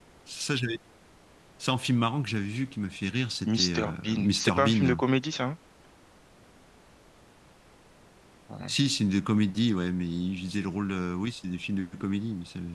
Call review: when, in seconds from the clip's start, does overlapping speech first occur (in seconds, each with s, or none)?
3.5 s